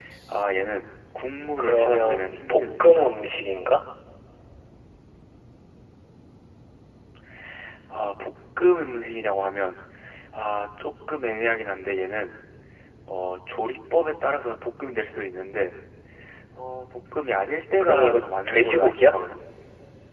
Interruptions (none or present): present